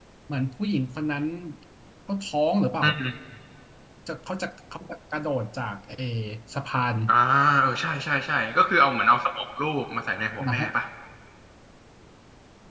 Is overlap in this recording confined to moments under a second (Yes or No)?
Yes